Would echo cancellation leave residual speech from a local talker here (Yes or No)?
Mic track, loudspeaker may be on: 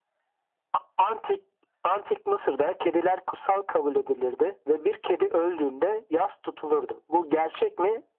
No